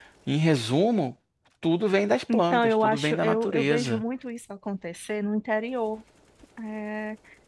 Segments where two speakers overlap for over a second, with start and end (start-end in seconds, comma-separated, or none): 2.3-4.0